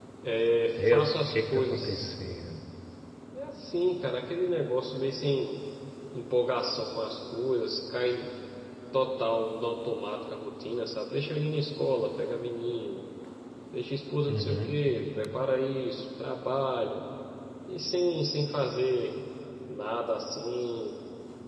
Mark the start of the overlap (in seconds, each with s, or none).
0.8 s